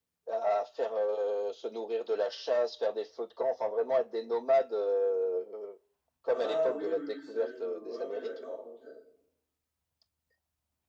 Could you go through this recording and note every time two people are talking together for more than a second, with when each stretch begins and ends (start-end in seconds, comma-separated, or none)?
6.3-8.3